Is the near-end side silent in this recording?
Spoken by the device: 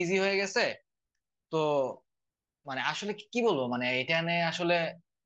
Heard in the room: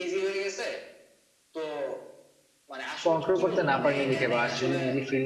No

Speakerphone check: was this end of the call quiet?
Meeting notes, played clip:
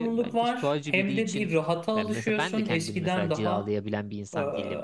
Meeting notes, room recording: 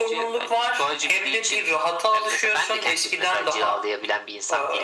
Yes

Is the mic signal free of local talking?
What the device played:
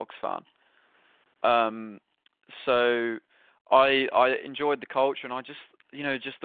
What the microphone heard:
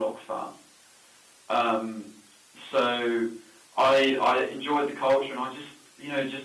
Yes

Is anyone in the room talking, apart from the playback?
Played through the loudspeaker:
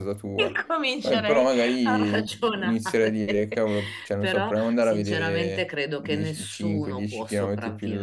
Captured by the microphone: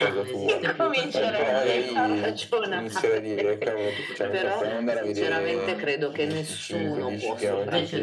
Yes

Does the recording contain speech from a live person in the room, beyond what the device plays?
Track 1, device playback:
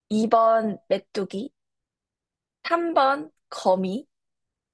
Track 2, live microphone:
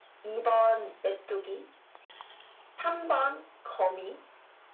No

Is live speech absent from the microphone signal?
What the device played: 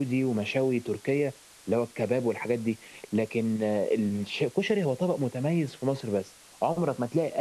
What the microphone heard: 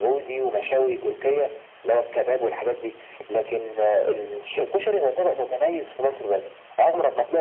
Yes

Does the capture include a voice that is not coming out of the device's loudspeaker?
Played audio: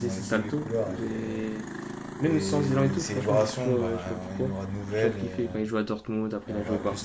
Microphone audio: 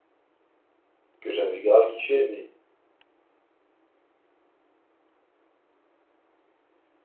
Yes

